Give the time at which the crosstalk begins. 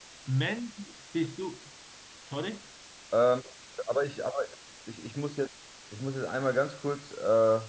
none

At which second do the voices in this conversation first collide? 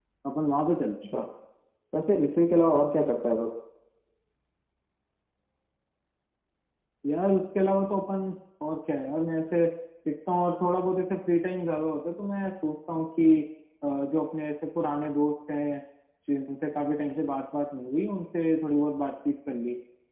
none

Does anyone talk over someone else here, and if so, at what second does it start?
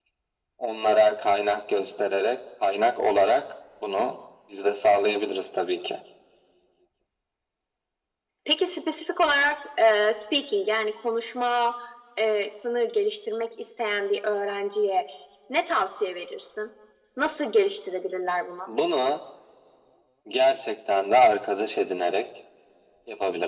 none

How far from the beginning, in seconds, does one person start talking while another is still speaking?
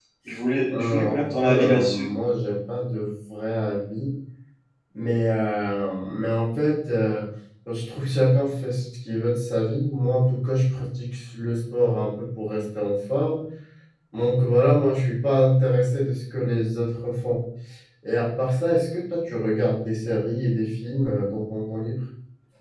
1 s

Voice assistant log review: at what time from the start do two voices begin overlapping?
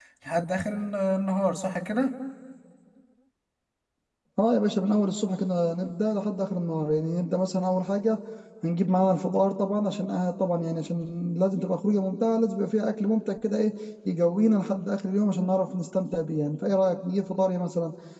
none

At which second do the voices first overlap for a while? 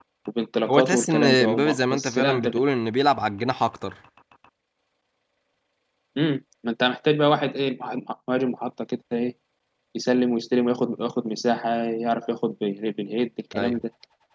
1 s

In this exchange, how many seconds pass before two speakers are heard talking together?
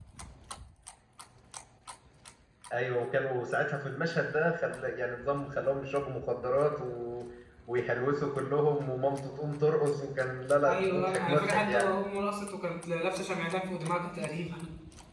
11 s

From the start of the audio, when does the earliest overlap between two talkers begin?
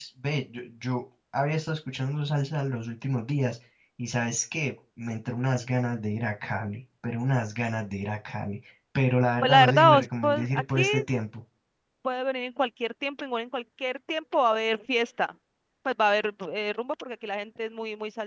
9 s

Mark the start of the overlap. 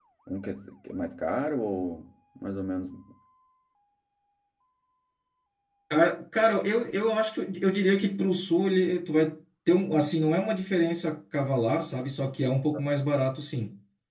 none

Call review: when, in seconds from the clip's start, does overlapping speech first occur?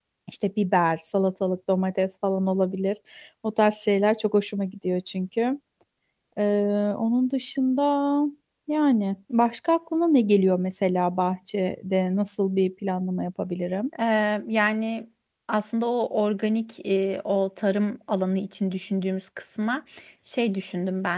none

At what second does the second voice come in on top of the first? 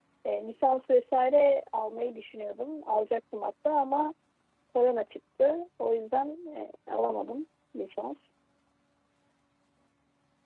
none

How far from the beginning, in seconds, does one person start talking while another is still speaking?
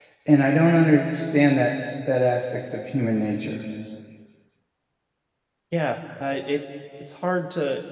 none

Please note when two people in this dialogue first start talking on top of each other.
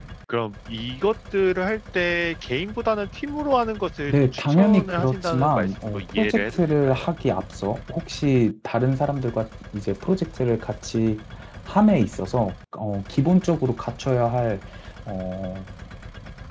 4 s

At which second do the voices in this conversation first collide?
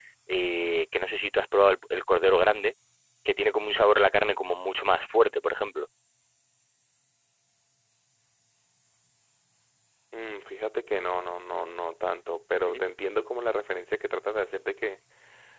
none

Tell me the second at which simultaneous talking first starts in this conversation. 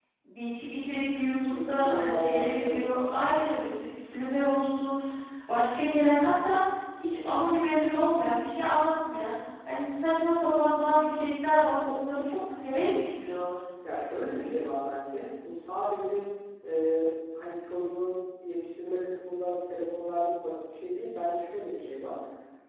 1 s

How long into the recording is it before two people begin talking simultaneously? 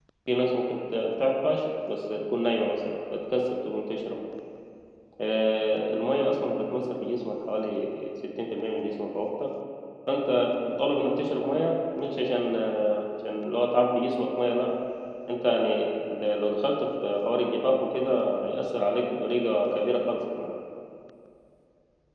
none

